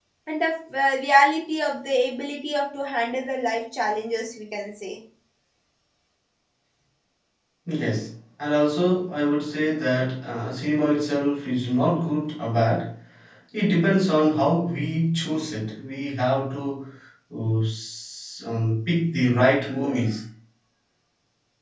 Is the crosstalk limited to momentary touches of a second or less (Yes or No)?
Yes